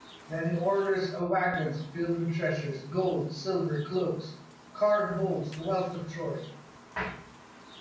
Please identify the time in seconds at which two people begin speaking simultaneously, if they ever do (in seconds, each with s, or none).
none